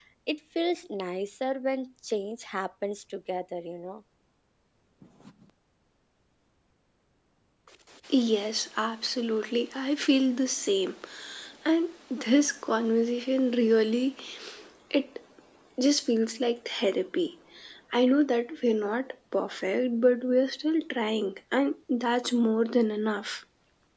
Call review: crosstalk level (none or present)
none